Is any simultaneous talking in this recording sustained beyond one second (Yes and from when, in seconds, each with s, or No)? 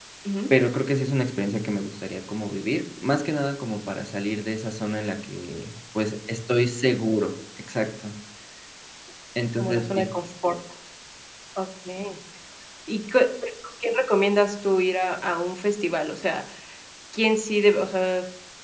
No